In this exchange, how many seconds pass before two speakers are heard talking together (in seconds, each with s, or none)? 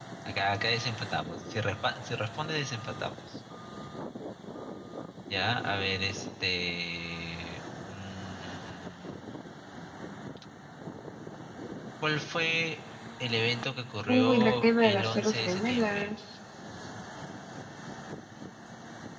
14.1 s